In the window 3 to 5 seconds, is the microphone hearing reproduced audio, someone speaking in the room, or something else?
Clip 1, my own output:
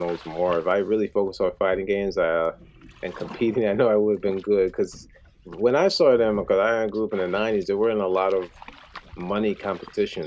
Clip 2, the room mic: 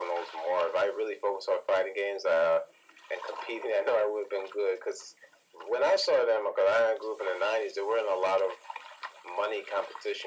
echo only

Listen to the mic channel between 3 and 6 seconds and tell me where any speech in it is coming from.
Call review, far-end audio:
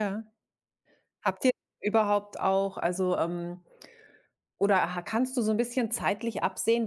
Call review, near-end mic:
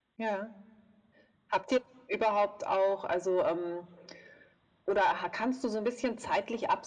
echo only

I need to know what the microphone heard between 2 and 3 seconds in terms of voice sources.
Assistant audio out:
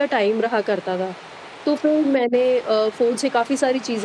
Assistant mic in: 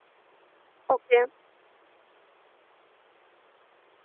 neither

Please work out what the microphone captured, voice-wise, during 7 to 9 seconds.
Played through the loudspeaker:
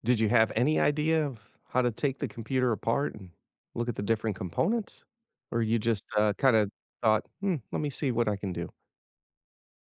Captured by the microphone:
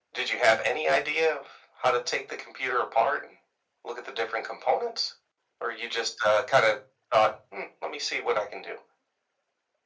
echo only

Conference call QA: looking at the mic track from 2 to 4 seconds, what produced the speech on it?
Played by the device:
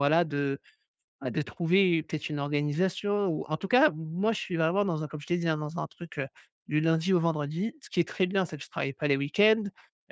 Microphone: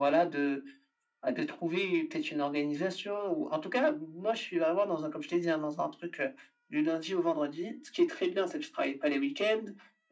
echo only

